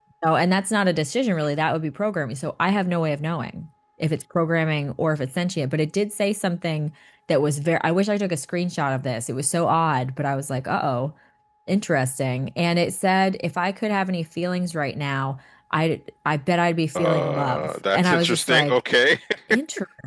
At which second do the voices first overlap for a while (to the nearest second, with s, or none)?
17 s